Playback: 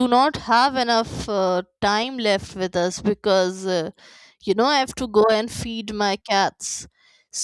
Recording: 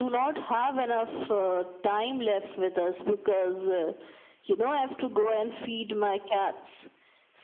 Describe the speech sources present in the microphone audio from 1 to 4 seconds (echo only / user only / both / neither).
echo only